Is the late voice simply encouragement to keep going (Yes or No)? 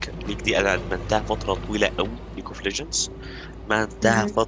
Yes